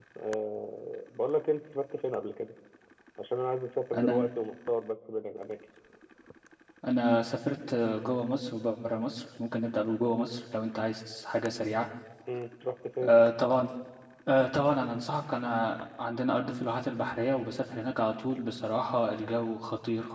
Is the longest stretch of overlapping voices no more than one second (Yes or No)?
Yes